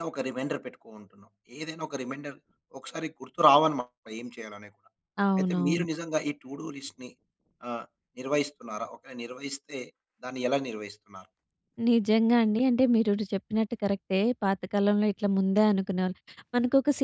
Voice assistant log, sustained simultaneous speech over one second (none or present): none